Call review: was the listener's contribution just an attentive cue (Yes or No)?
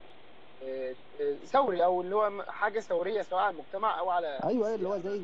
No